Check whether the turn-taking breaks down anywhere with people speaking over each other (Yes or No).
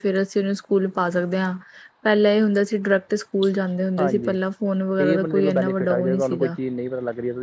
Yes